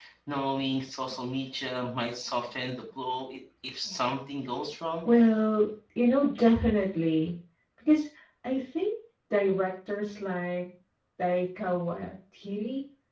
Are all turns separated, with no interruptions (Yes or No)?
Yes